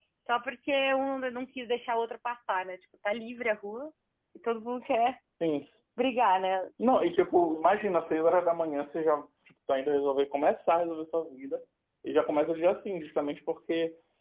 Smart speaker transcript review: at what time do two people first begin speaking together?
none

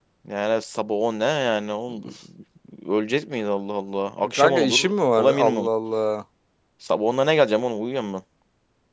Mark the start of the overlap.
4 s

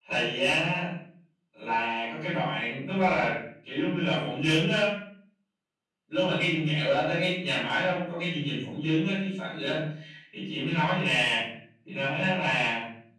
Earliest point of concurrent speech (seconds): none

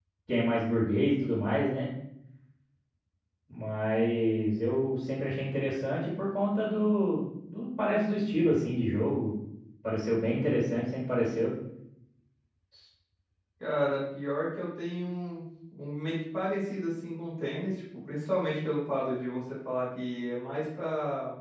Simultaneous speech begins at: none

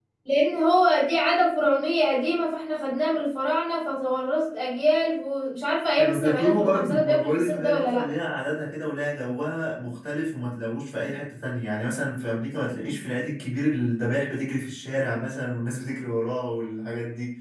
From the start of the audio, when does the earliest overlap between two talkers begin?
6 s

